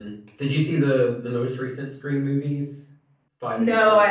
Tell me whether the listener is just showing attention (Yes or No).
No